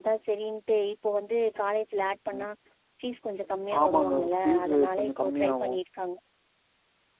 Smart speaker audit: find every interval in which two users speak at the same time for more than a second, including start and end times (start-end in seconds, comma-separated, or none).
3.8-5.7